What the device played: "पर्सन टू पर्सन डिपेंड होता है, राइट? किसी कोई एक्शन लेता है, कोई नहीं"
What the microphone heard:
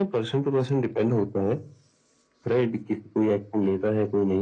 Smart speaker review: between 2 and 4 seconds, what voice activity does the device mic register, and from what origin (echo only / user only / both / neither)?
echo only